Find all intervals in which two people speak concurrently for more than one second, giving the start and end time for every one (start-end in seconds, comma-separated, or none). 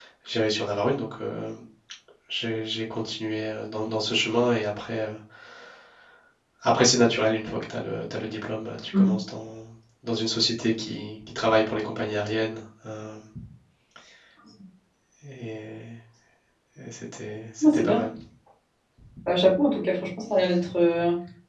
none